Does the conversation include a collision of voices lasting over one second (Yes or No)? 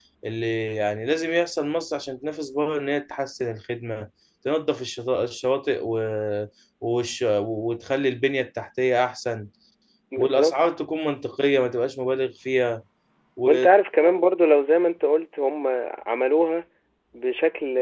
No